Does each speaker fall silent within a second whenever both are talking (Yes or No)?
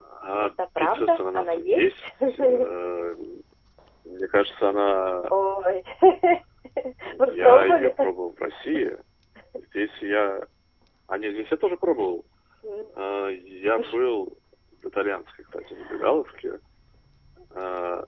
No